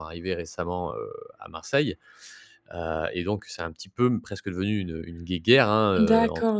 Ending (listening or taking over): taking over